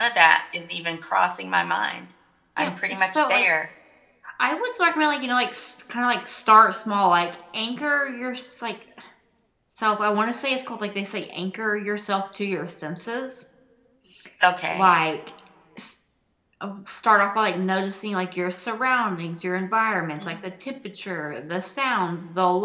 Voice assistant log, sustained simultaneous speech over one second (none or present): none